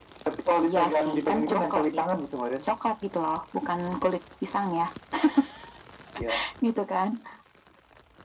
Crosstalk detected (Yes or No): Yes